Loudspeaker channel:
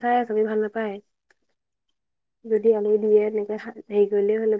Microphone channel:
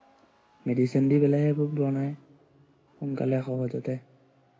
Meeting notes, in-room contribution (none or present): present